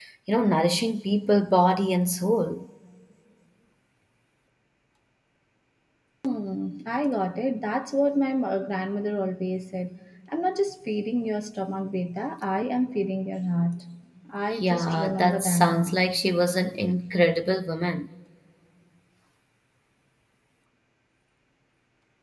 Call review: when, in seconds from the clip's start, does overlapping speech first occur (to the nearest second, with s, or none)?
15 s